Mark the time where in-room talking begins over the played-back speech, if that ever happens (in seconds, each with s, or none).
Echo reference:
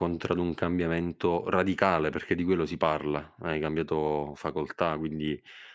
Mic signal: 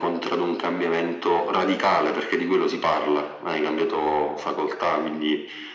none